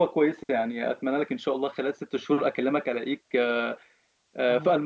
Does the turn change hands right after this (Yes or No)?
Yes